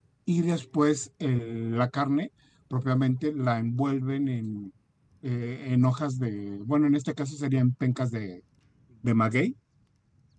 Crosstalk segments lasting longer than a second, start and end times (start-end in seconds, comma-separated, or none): none